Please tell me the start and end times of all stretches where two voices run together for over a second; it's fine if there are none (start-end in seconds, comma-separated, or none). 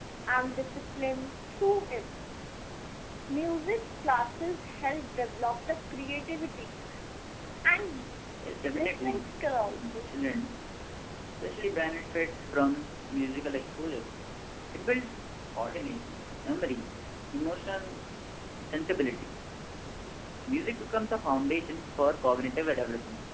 8.7-10.1